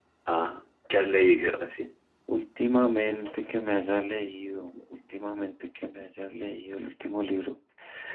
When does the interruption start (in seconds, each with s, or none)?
none